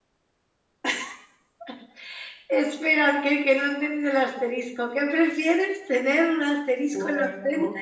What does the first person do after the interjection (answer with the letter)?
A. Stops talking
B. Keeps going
A